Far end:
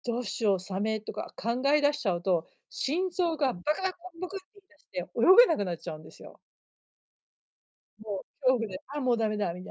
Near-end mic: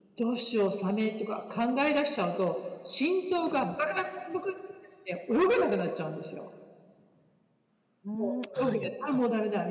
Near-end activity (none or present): present